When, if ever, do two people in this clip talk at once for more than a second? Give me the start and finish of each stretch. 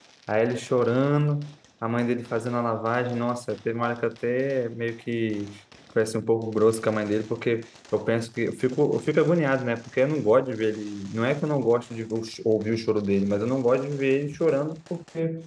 none

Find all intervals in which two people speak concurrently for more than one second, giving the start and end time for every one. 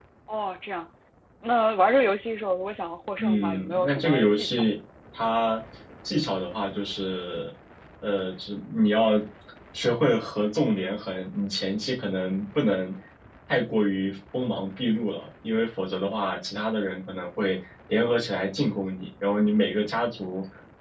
3.2-4.7

